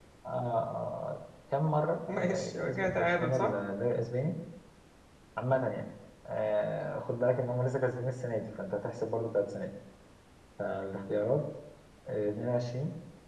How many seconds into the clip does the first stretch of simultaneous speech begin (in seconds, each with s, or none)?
2.1 s